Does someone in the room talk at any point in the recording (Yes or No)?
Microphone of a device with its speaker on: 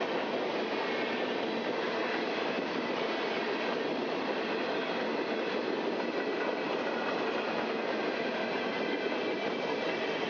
No